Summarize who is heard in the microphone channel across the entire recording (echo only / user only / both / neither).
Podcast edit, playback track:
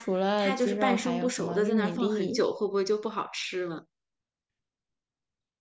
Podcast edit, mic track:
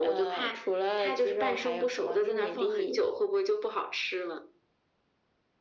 echo only